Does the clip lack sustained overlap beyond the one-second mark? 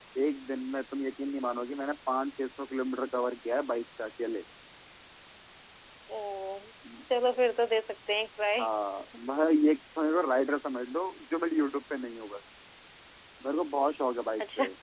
Yes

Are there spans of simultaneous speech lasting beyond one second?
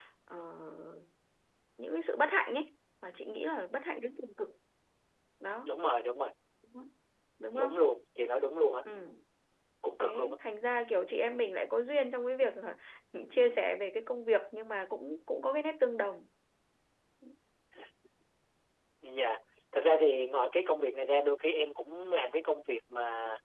No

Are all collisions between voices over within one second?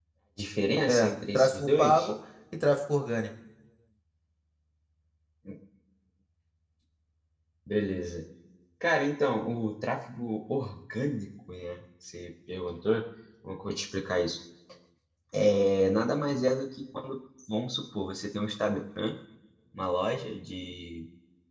No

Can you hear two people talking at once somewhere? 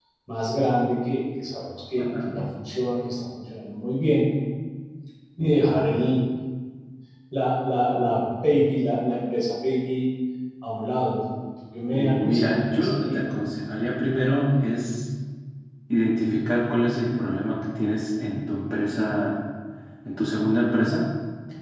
Yes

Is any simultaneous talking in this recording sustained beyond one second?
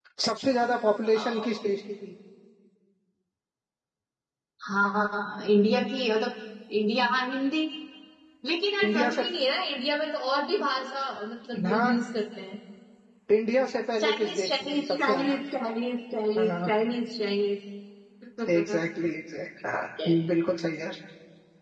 Yes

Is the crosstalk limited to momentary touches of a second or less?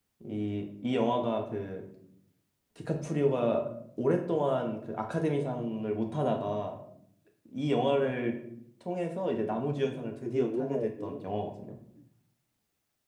No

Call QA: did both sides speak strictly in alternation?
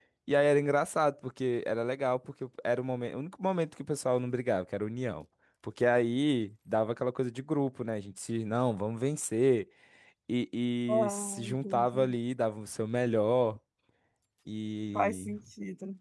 No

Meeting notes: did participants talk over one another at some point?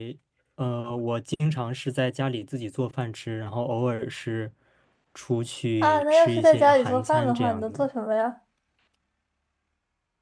Yes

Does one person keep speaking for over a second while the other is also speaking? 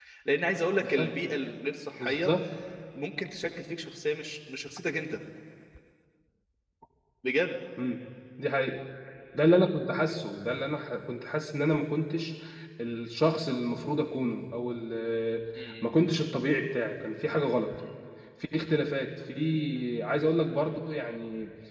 No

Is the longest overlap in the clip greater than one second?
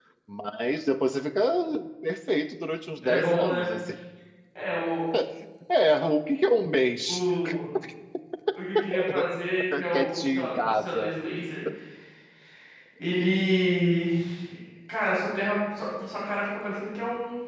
Yes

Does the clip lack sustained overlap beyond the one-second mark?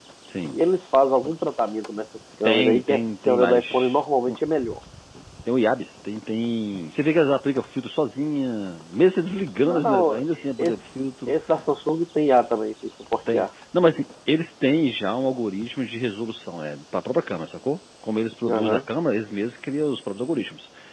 No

